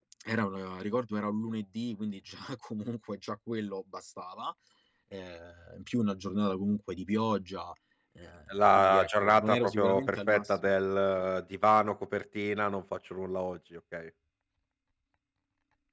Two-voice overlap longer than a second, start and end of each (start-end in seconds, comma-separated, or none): 8.5-10.7